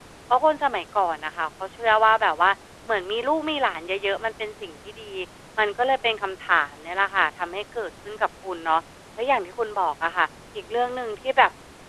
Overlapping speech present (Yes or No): No